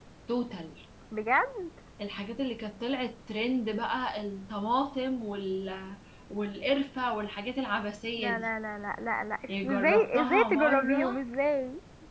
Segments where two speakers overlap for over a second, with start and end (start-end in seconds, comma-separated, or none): 9.5-11.2